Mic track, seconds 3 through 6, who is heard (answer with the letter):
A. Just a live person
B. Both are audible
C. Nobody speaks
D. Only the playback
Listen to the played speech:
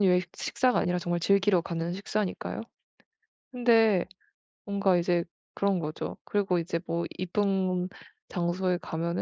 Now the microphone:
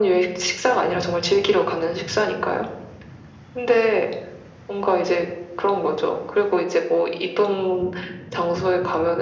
D